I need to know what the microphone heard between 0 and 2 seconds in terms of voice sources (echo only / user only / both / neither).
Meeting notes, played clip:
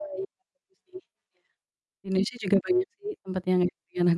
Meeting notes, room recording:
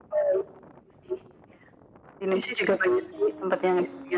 echo only